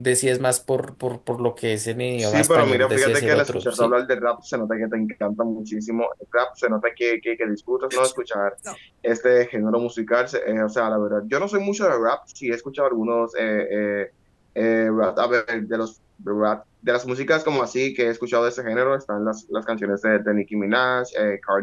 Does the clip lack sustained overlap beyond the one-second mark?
No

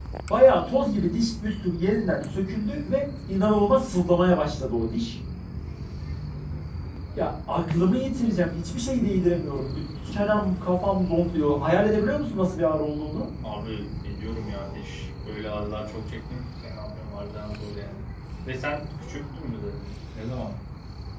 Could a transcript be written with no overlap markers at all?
Yes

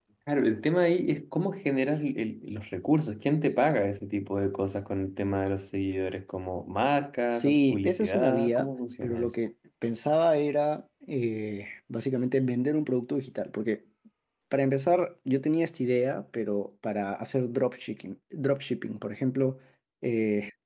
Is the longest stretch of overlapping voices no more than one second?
No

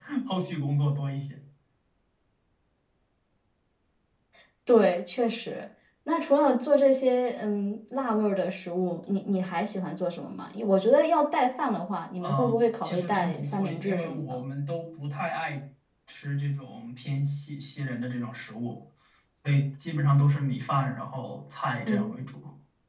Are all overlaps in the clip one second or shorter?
No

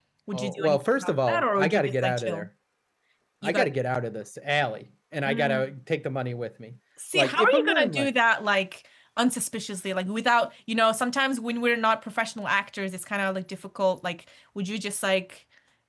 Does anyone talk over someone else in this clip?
Yes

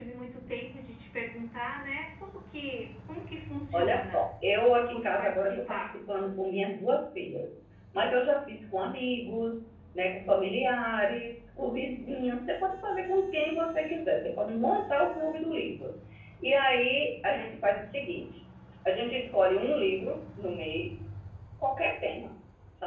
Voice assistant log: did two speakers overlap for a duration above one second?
Yes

